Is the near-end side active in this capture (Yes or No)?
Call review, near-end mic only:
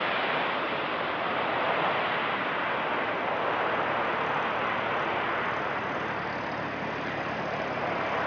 No